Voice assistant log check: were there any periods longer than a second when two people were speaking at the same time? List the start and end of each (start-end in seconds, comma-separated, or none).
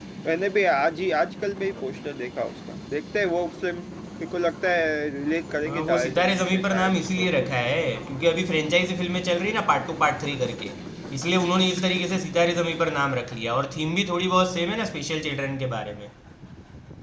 5.7-7.5